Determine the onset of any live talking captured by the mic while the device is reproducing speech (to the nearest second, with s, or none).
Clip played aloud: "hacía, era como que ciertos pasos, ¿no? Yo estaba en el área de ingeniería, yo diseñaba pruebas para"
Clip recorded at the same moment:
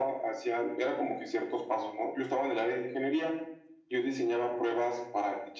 none